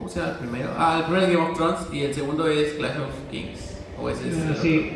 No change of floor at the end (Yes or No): No